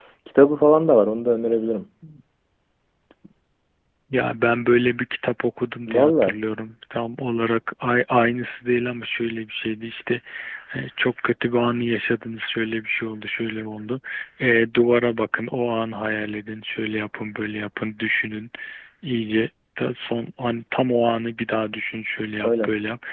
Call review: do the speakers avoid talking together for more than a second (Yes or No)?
Yes